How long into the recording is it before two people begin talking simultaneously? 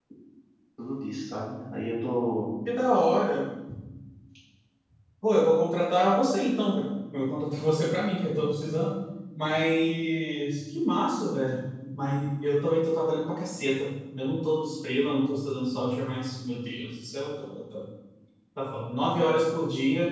none

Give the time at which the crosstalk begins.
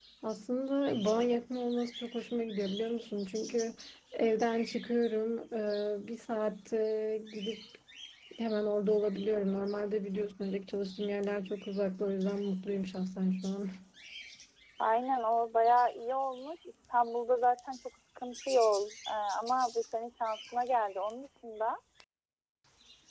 none

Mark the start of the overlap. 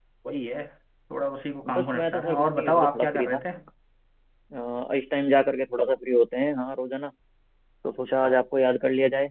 2 s

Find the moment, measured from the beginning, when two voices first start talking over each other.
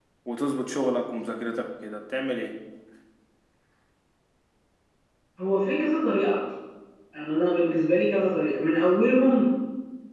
none

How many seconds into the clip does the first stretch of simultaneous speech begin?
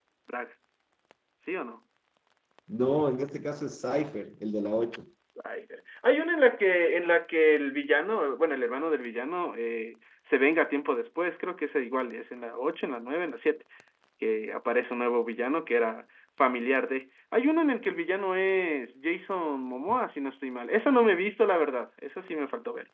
none

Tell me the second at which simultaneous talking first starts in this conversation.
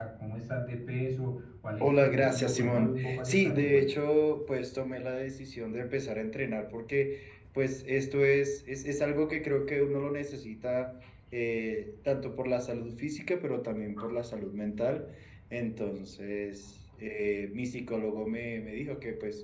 2 s

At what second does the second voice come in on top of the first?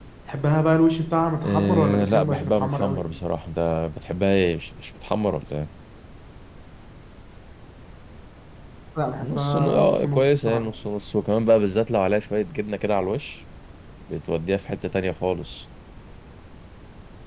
1 s

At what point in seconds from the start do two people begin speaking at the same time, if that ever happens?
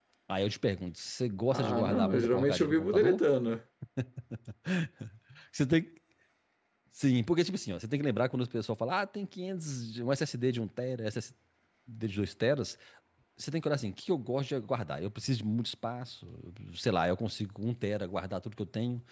2 s

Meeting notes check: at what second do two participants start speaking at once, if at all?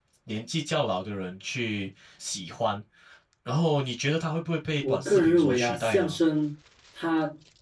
5 s

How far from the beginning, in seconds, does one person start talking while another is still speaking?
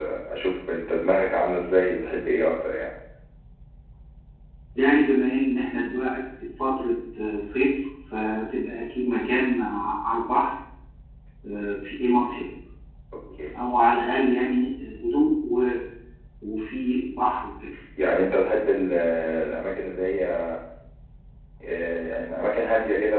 none

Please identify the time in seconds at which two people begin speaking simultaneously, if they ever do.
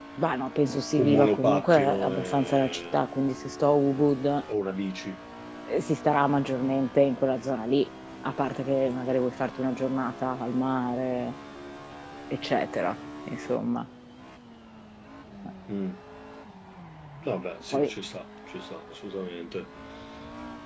1 s

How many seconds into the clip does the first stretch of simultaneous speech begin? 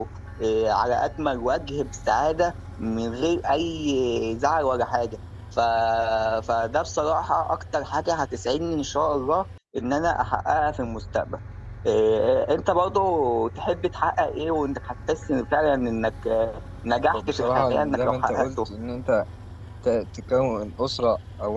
17 s

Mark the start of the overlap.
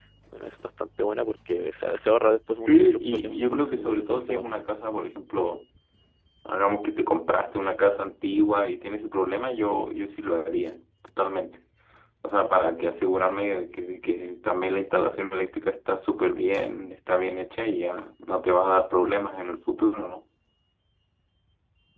3 s

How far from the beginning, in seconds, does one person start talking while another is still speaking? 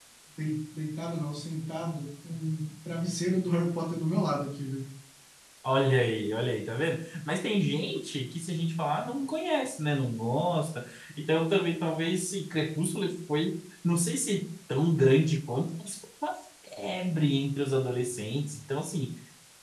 none

